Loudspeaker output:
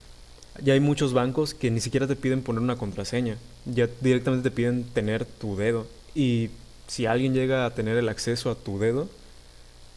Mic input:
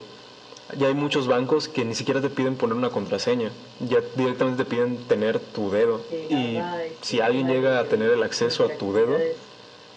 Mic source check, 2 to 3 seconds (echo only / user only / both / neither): echo only